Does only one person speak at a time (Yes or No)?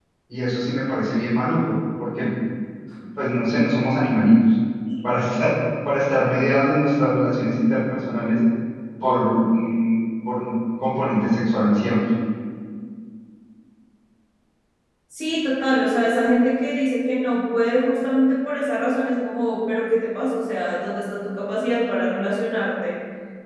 Yes